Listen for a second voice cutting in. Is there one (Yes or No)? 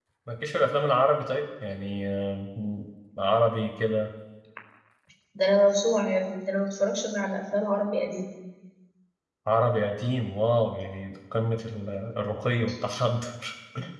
No